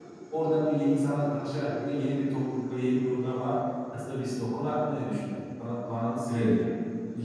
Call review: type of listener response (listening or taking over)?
taking over